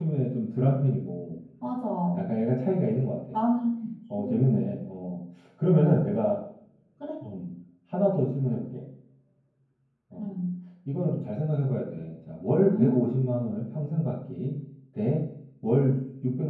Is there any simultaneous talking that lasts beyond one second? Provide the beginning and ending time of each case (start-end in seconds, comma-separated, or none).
none